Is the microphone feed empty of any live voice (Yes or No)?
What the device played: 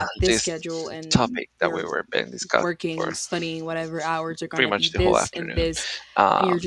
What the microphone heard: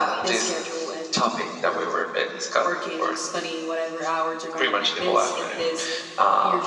Yes